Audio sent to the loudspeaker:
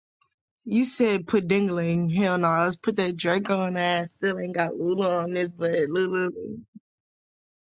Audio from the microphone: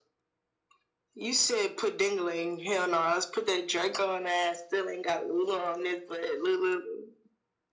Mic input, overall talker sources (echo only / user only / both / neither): echo only